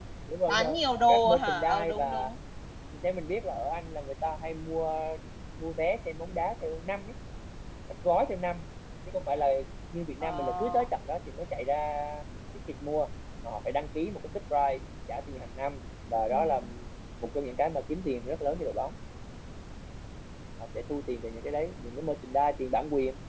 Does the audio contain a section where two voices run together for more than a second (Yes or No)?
Yes